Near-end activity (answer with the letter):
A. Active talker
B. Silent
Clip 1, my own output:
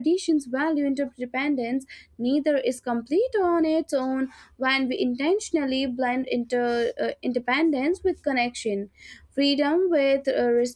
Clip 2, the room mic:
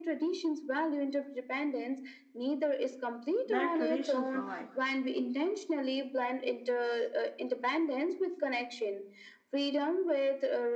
A